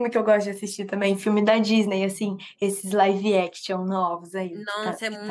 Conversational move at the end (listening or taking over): taking over